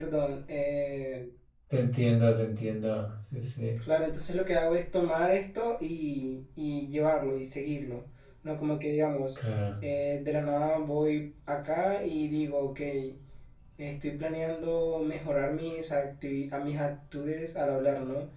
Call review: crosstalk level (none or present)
none